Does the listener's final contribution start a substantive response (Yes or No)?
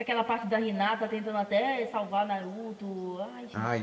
Yes